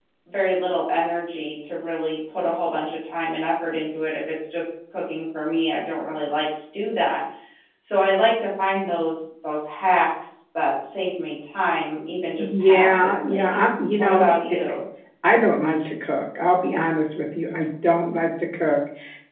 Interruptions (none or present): present